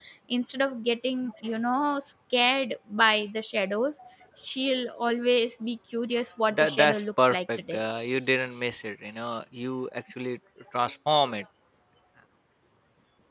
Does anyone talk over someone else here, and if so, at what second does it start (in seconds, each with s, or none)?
6.5 s